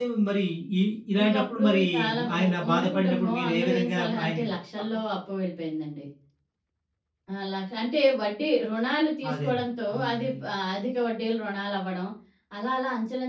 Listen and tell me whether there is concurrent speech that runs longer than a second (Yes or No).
Yes